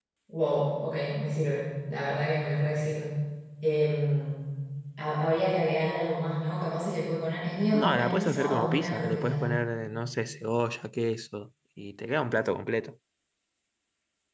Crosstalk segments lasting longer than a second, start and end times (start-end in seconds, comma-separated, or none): 7.7-9.4